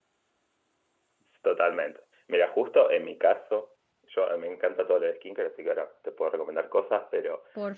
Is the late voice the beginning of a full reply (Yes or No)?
No